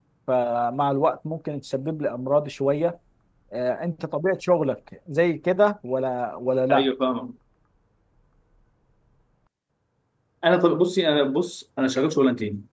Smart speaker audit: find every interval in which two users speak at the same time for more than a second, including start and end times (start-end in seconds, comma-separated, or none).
none